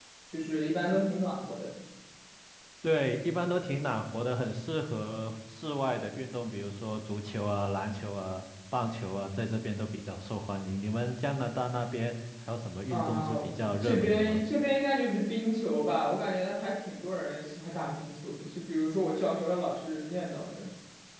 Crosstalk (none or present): present